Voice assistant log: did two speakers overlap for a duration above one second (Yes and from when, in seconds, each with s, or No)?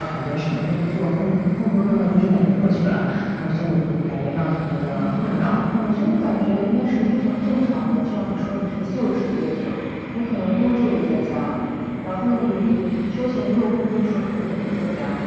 No